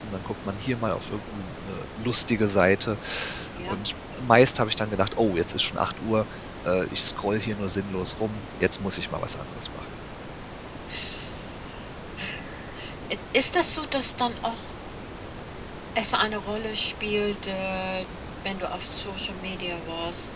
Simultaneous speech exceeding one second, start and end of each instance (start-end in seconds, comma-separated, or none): none